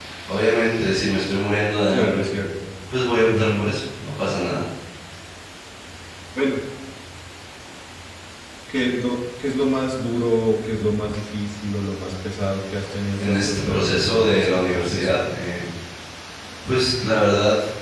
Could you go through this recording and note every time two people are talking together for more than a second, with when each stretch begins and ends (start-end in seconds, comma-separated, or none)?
13.2-15.2